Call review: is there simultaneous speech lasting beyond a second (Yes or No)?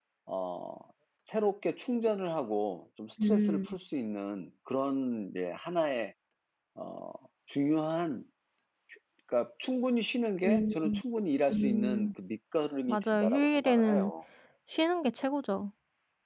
Yes